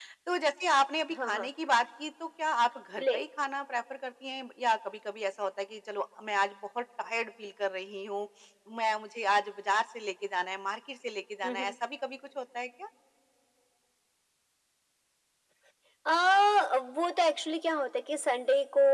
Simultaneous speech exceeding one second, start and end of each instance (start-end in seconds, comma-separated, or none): none